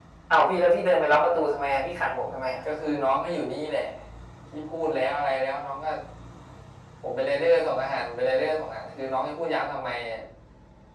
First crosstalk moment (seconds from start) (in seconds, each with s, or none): none